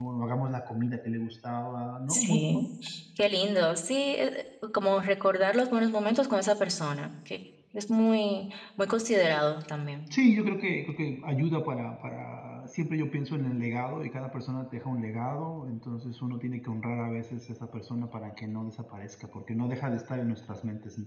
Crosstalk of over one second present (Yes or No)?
No